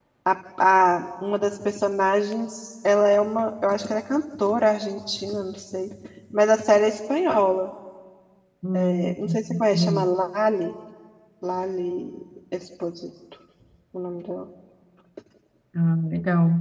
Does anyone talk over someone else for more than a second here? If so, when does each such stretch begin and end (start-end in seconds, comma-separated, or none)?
8.7-10.1